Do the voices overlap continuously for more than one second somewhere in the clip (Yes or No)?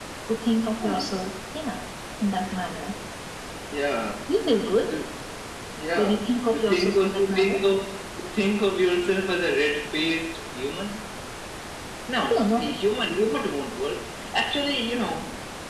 Yes